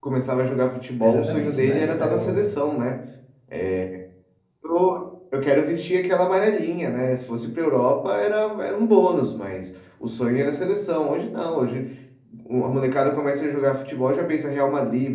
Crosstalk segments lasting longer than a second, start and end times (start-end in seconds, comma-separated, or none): 1.0-2.5